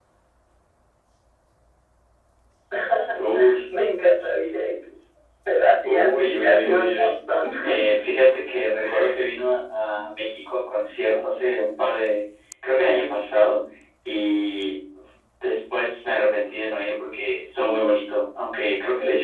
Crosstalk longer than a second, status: present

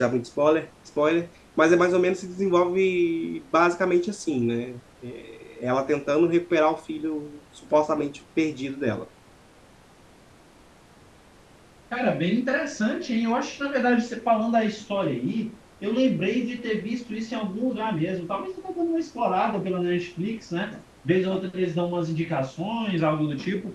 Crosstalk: none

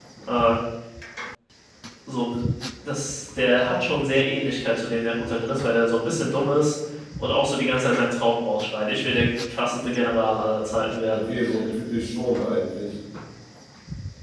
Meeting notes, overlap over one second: none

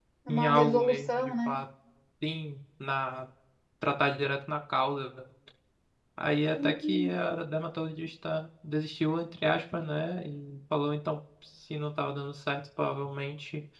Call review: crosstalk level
present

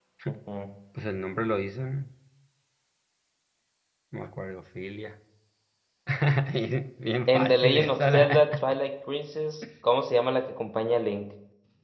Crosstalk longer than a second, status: present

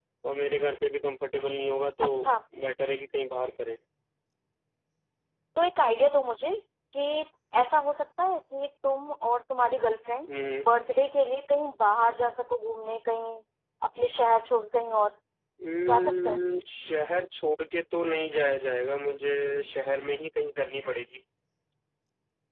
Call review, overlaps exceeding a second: none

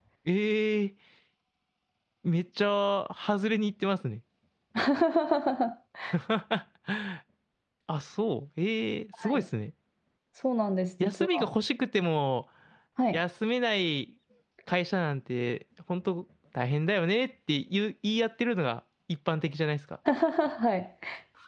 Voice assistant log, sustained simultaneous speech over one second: none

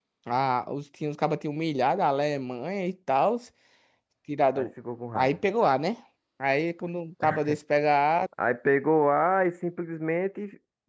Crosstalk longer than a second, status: none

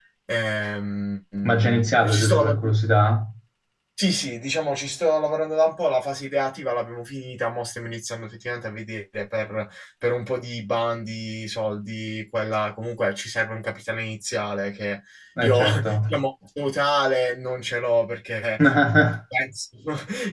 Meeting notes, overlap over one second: present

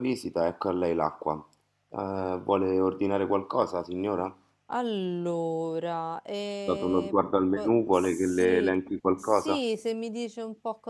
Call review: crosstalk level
present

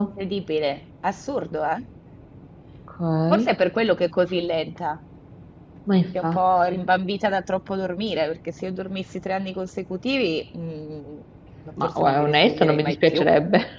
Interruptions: present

